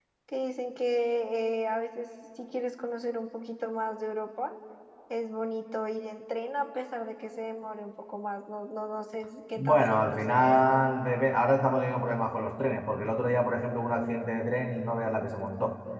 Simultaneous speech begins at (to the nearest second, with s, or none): 10 s